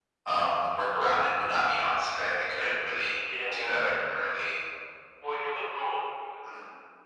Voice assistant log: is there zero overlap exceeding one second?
No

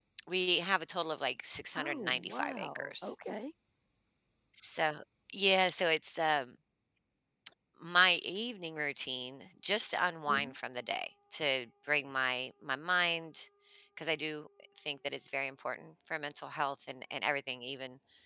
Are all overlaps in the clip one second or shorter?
No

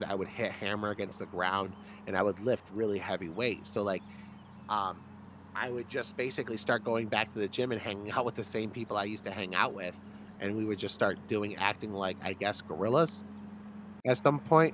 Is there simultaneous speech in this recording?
No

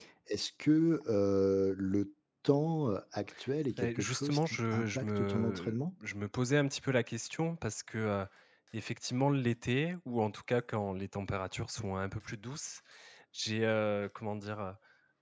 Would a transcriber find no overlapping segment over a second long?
No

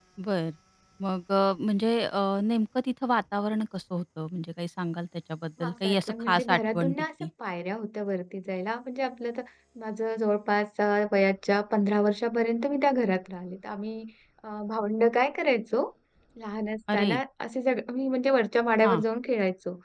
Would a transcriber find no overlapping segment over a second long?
No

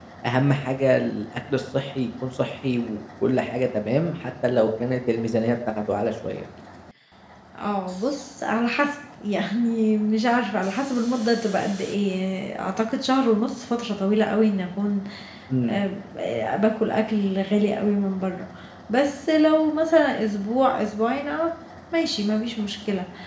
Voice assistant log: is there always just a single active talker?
Yes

